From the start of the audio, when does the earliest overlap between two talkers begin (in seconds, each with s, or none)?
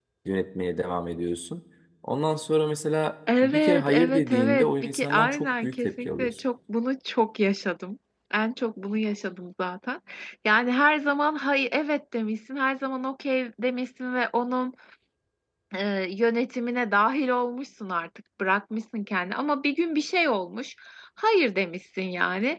3.3 s